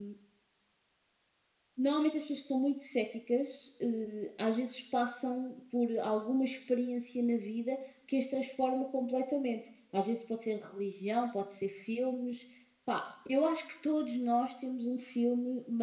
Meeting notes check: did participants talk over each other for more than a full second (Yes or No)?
No